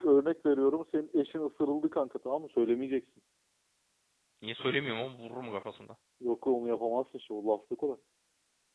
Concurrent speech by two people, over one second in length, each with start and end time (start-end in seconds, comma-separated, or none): none